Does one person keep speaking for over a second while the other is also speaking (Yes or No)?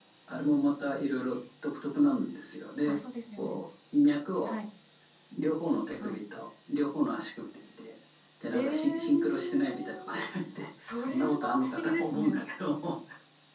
Yes